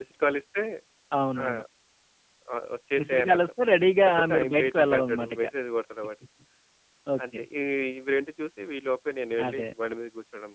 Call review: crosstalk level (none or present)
present